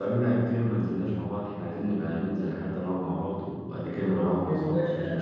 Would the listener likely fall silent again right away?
No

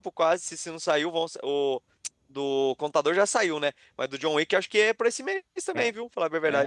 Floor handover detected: Yes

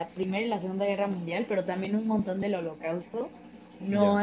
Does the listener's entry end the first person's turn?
No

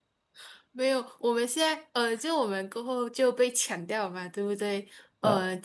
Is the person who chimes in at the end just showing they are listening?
Yes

